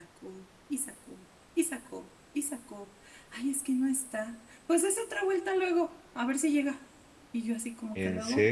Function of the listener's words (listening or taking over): listening